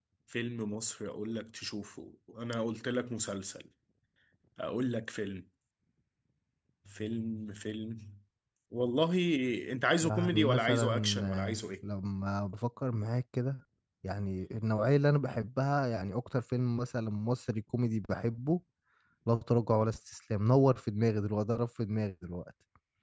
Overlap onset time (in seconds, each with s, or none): 10.0 s